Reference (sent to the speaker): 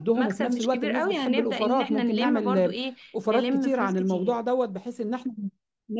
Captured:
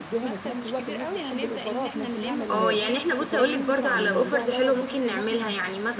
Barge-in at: 2 s

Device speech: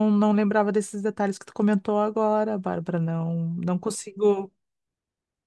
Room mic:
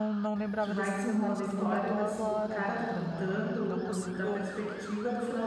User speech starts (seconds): 1 s

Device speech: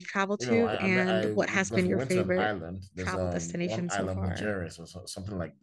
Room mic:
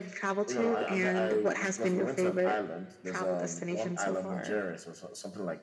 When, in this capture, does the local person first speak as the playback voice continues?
none

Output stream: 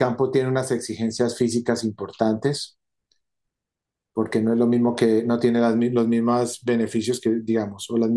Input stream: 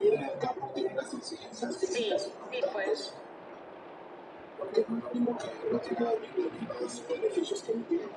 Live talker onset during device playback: 2 s

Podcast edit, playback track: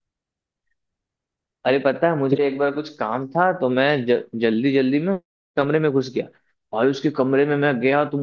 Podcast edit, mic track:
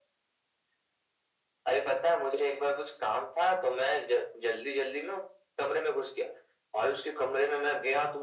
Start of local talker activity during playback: none

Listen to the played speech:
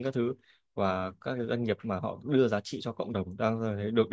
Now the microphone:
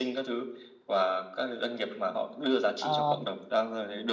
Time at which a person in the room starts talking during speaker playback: 3 s

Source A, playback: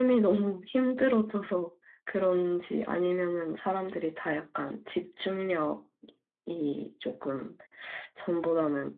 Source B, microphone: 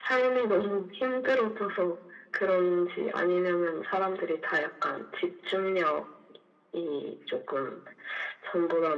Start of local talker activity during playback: none

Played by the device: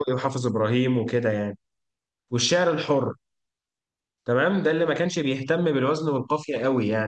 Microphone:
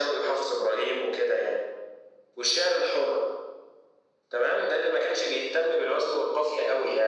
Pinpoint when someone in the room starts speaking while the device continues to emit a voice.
none

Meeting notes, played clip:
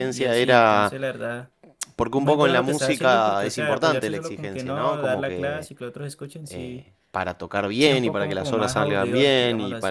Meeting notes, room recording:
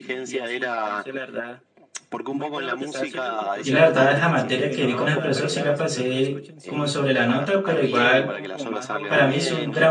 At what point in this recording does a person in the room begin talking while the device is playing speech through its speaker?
4 s

